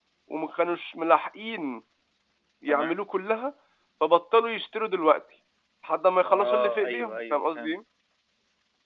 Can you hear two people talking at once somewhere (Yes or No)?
Yes